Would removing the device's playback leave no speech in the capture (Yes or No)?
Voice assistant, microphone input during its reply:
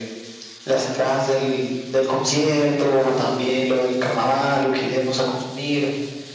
Yes